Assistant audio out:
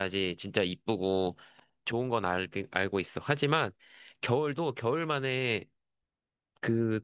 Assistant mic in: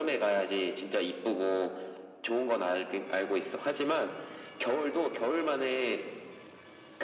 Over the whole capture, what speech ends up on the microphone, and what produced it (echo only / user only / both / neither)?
echo only